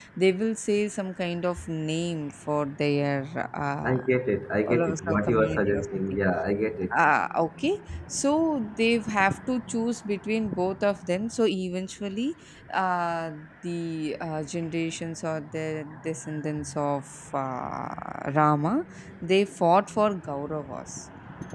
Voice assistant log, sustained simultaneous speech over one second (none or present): present